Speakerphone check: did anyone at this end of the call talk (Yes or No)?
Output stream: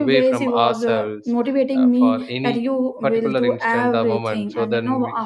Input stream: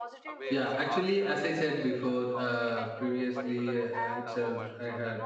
Yes